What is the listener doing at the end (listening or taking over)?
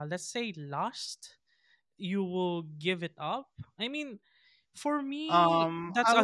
taking over